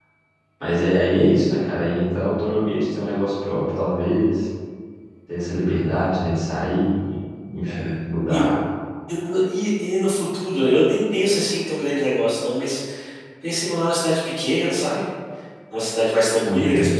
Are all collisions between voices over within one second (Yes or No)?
Yes